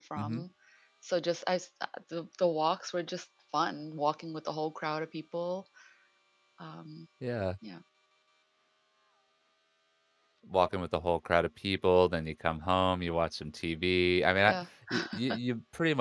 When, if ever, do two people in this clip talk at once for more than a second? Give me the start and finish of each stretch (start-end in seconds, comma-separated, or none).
none